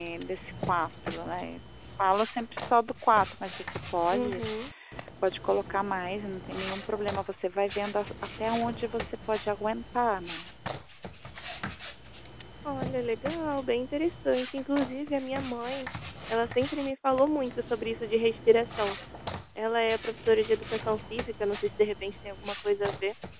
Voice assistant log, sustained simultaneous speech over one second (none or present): none